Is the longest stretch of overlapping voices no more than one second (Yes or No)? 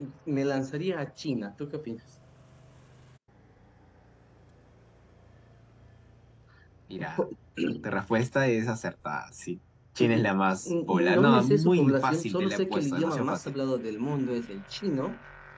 No